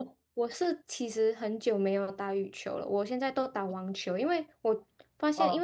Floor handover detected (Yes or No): No